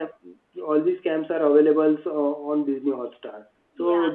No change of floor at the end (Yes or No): Yes